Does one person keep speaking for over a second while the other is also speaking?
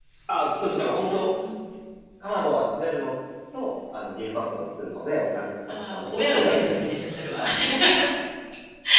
Yes, from 5.7 s

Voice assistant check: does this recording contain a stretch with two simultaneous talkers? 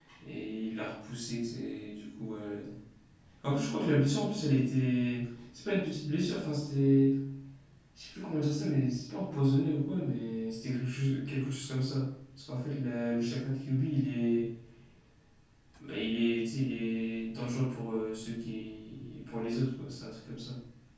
No

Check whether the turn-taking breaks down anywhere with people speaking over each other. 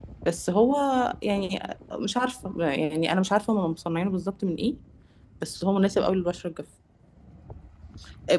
No

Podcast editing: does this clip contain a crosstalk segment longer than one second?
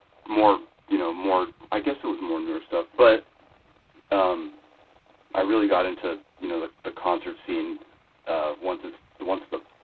No

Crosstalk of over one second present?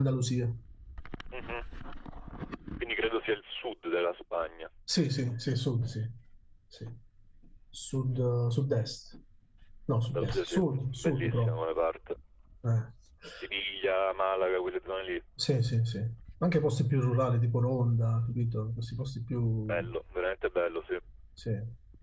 Yes, from 10.1 s

